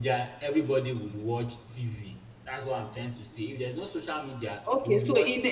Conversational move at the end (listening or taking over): taking over